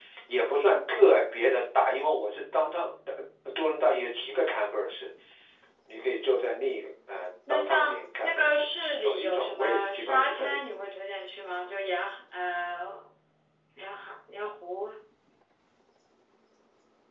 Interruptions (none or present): present